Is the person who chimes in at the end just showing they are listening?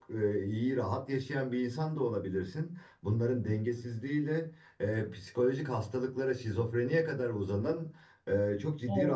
Yes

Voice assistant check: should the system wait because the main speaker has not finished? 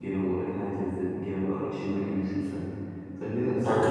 No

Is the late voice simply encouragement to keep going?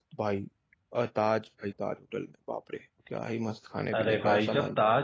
No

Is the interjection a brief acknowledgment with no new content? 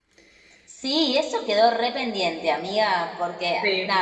Yes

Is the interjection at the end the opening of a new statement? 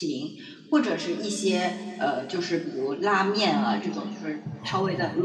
No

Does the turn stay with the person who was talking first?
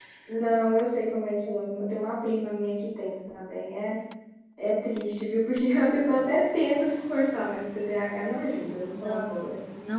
No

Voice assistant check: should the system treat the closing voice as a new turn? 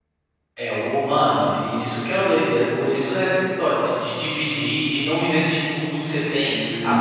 No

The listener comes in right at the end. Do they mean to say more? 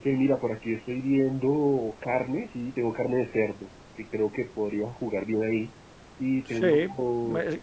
Yes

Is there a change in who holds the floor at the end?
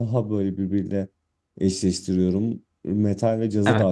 No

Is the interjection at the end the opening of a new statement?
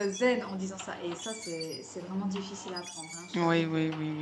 Yes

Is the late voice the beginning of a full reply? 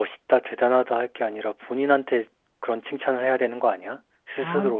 Yes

